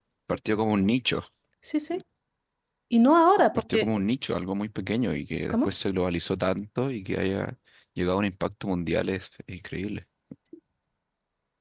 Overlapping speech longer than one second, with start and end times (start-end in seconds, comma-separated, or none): none